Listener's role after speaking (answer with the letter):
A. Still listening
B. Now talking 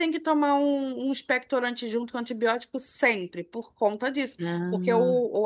A